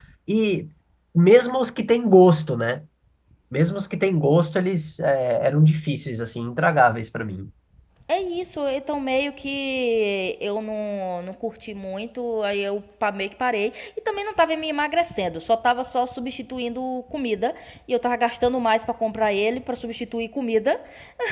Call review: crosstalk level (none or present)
none